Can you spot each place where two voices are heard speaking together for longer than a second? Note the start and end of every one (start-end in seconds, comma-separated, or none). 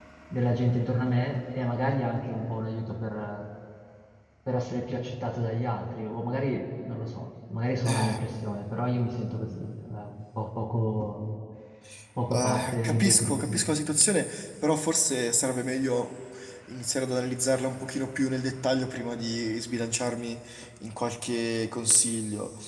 12.3-13.6